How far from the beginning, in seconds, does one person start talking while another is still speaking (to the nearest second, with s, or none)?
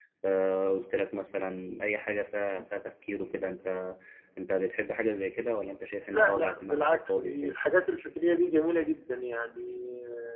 6 s